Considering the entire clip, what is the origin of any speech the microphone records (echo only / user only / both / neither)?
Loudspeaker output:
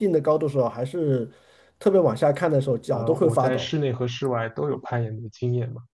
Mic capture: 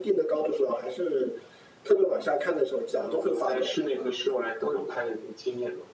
echo only